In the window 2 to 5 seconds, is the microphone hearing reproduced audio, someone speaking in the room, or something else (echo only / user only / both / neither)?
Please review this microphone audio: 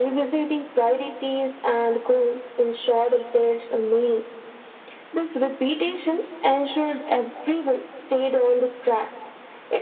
echo only